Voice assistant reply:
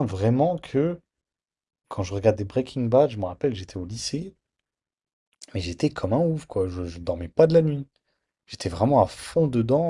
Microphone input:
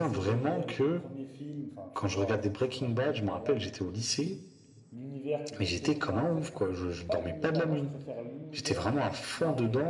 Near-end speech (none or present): present